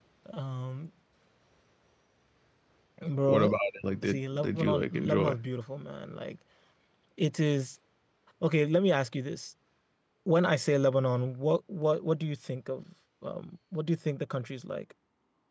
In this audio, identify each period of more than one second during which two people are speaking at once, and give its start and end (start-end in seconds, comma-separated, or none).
4.0-5.4